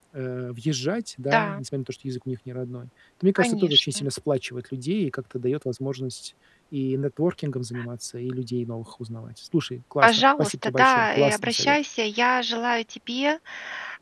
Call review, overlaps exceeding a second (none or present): present